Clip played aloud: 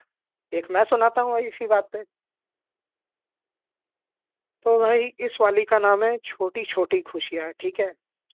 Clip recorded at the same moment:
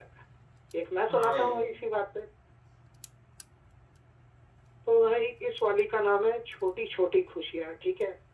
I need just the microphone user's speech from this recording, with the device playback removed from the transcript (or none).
हाँ भाई